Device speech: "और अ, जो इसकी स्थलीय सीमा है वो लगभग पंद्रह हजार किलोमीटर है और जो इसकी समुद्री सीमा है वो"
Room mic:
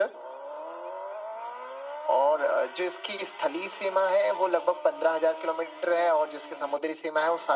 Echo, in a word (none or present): present